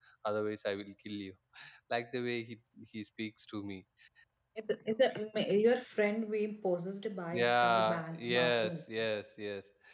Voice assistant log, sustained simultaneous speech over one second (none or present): present